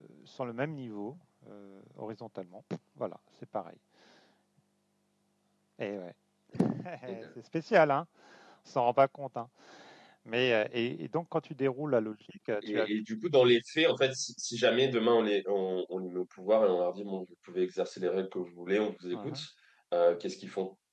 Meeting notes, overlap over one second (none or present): none